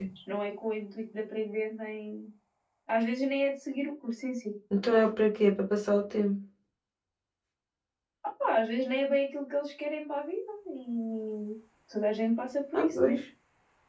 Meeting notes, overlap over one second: none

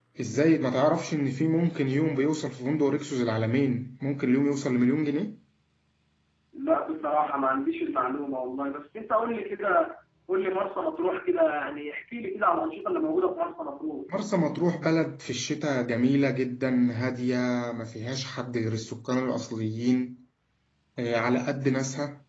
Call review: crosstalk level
none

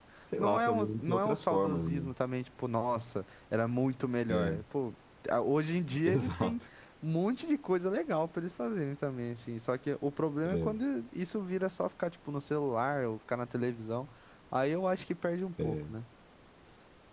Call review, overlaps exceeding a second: present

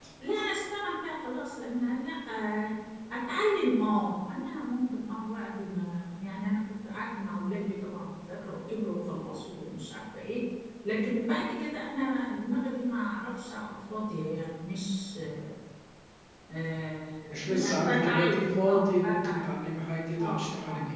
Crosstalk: present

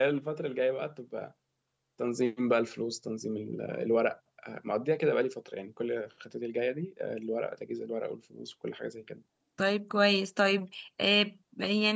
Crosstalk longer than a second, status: none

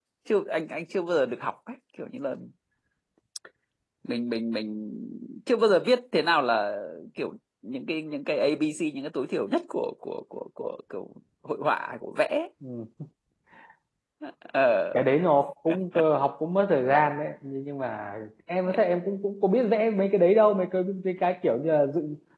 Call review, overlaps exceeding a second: none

